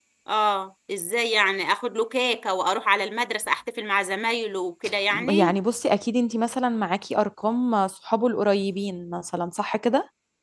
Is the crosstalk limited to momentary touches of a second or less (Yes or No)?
Yes